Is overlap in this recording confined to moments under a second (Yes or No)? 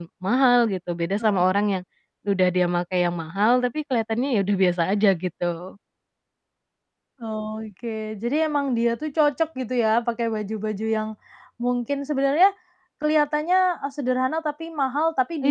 Yes